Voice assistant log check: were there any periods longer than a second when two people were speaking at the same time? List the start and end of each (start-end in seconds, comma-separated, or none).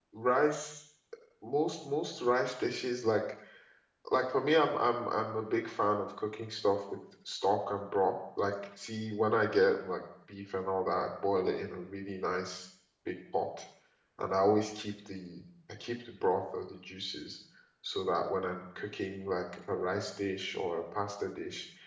none